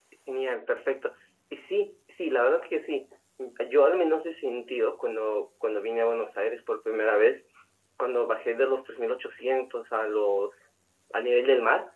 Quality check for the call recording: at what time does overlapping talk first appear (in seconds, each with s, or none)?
none